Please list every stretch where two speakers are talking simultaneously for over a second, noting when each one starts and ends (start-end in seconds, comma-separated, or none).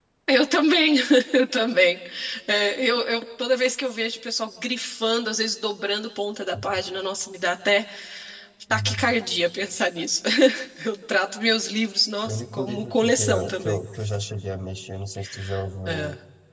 12.2-13.8